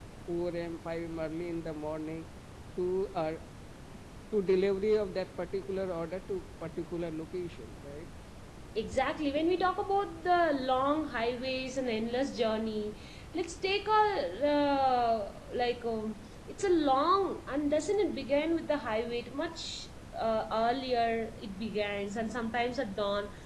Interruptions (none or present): none